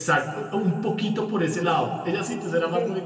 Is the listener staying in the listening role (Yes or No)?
Yes